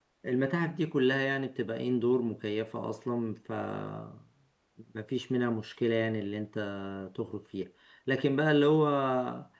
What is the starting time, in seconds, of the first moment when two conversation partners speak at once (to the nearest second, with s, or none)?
none